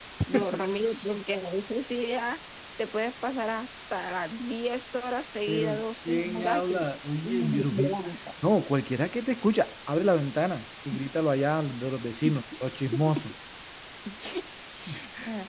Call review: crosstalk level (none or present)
present